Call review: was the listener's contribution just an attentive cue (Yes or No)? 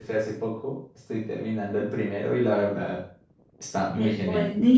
No